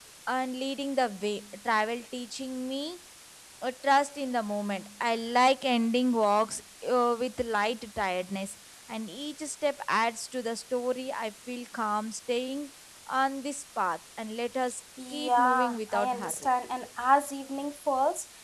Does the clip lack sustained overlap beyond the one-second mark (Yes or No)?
No